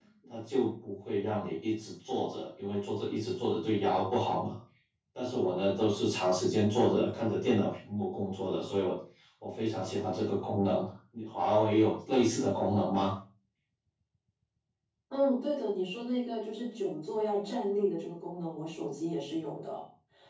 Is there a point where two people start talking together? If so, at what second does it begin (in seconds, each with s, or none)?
none